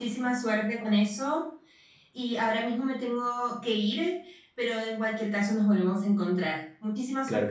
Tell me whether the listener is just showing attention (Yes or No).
No